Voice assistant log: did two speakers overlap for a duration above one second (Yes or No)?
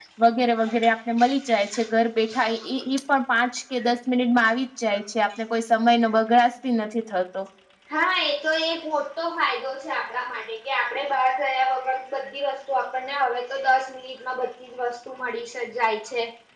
No